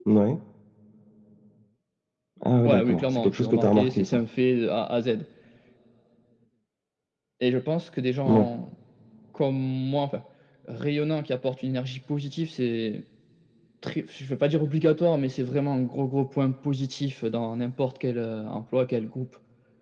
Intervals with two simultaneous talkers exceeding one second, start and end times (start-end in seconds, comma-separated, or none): 2.6-4.2